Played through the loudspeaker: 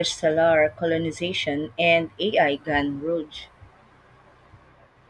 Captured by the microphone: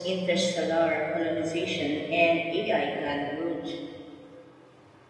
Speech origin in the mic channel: echo only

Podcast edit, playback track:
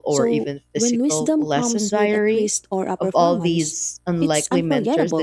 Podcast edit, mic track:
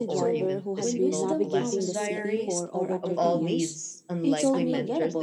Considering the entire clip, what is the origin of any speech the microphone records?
both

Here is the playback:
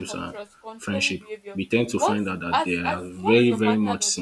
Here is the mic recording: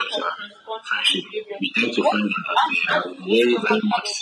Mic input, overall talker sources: echo only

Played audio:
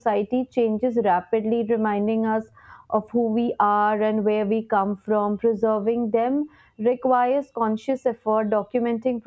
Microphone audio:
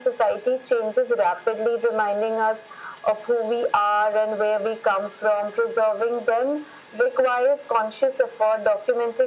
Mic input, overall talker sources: echo only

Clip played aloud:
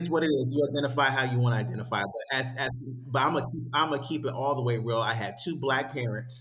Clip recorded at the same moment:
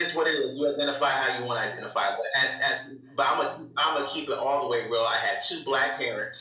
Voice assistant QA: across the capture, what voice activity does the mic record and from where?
echo only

